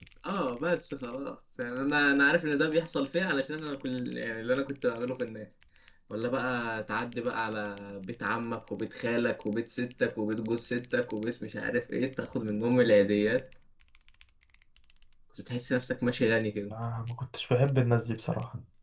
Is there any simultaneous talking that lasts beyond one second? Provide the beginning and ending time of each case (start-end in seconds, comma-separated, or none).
none